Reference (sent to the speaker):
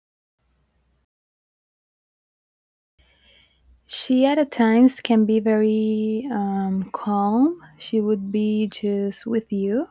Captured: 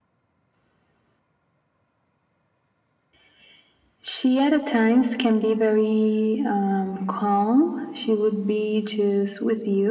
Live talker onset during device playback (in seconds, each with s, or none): none